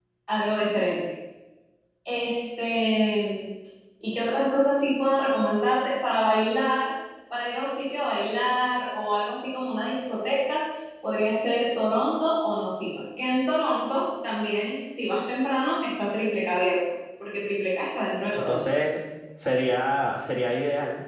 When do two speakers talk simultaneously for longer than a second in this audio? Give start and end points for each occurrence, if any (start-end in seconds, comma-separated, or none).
none